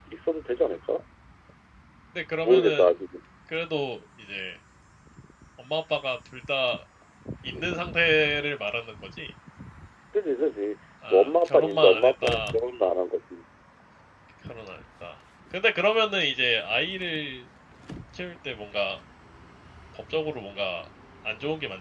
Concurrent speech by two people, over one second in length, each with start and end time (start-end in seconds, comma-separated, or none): 11.1-12.5